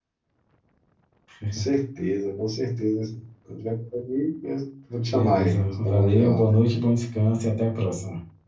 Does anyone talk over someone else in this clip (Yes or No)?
Yes